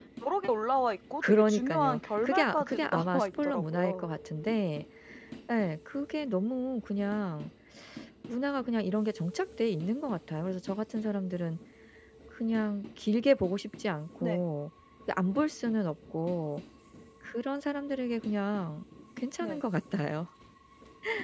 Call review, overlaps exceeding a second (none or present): present